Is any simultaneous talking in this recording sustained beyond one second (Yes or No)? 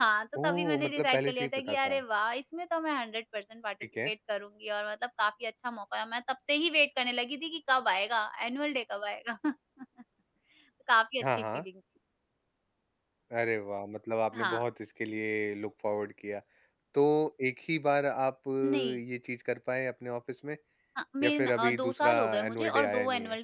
Yes